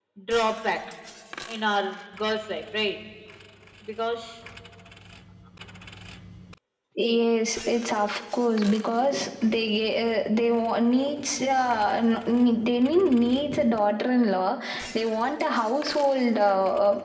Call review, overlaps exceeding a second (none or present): none